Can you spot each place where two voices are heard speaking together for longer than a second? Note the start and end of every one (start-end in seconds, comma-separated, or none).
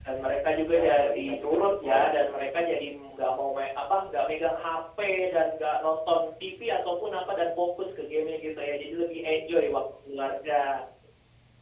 0.7-2.5